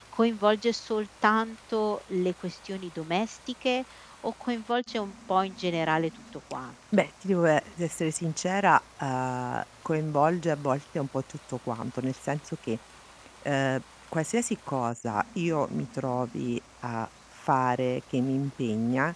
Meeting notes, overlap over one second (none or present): none